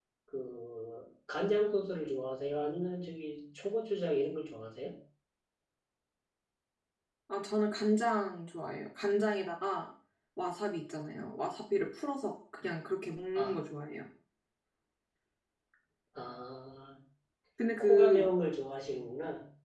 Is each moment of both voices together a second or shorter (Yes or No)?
Yes